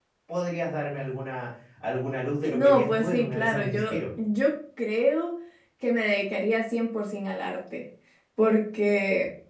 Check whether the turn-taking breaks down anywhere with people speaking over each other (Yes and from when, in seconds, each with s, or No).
Yes, from 2.4 s